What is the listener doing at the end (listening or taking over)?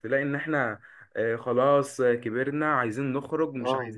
listening